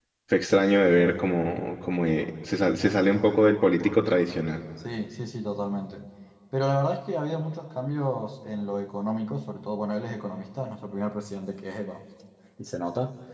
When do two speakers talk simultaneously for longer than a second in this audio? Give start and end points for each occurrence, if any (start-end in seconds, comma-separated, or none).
none